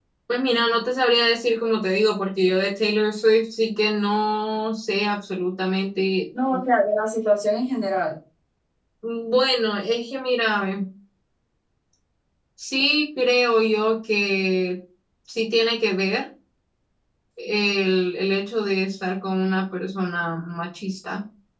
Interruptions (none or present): none